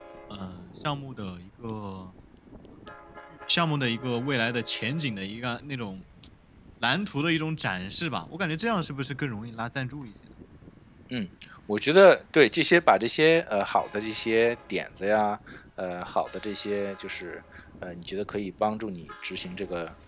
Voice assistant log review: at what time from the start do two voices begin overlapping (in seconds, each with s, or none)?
none